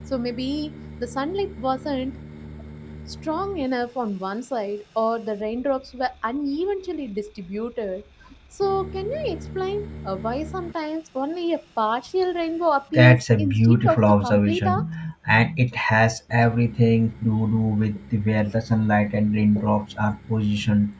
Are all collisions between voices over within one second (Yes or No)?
No